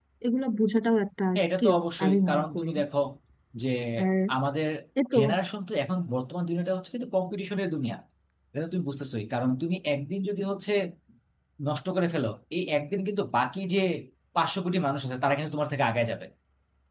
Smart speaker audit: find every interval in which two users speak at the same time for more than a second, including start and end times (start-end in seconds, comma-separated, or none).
1.4-2.7